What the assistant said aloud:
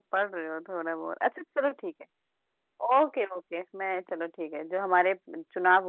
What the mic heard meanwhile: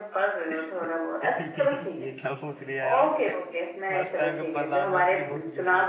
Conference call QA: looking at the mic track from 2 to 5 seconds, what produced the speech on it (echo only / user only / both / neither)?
both